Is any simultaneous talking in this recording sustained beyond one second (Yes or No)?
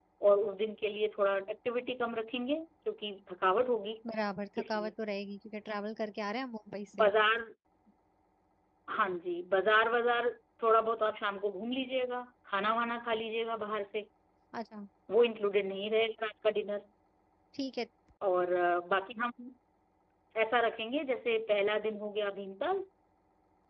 No